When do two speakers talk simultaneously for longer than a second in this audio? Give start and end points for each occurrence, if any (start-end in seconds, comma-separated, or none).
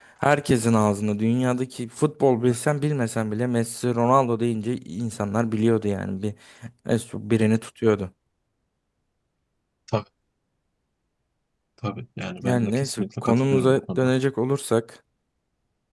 12.4-14.1